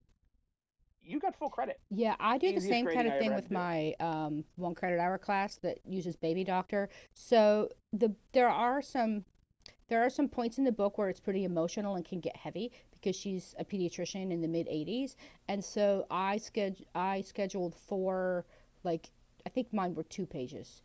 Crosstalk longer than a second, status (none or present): present